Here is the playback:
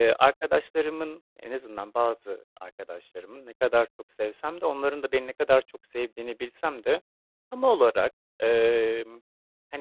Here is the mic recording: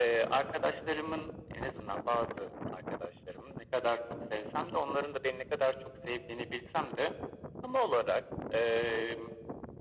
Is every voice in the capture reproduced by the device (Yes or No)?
Yes